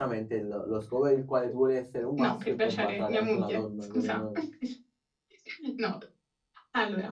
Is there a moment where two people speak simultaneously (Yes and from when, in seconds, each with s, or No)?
Yes, from 2.2 s